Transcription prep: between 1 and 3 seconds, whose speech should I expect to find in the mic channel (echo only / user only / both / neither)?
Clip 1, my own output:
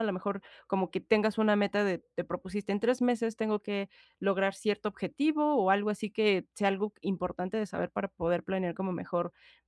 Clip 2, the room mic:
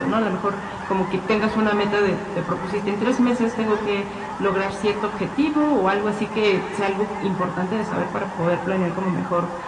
echo only